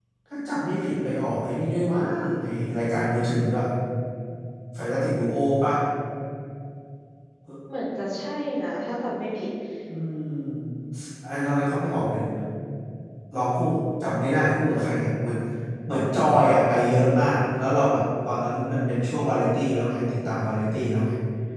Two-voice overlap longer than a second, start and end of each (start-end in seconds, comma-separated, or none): none